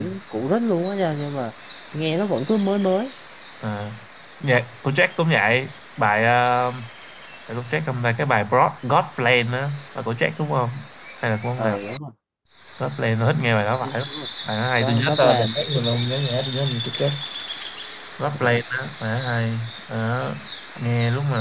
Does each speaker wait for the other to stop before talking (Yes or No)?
No